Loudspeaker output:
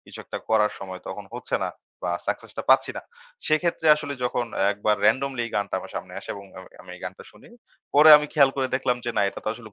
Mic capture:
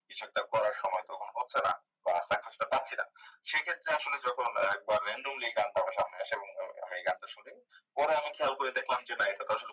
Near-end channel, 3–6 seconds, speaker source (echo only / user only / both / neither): echo only